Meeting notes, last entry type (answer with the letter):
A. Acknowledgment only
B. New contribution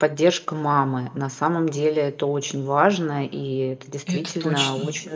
A